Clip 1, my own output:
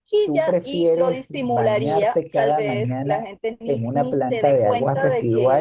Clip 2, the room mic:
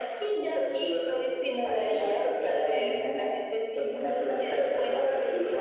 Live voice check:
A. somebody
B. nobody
B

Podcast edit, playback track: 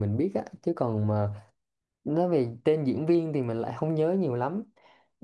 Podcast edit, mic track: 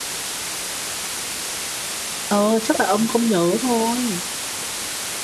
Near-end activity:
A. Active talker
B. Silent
A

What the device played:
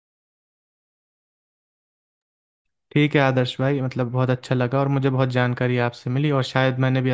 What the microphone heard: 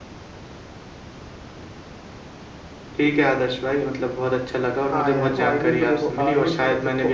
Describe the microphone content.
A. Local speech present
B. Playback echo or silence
A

